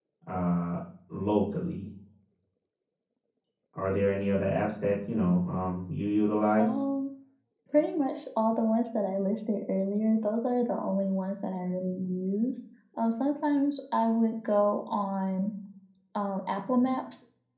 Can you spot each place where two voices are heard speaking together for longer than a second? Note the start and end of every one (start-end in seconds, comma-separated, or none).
none